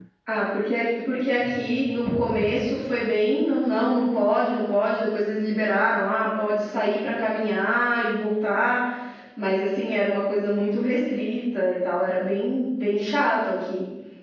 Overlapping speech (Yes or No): No